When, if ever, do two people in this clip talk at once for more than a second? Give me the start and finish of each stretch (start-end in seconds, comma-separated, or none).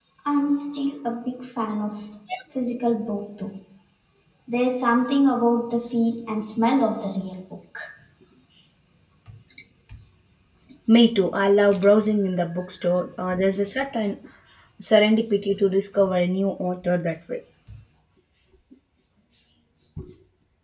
none